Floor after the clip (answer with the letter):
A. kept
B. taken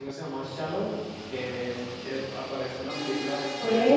B